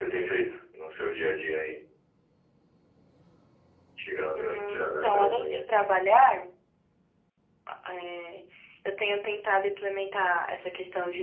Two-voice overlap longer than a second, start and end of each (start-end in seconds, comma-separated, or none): 4.3-5.6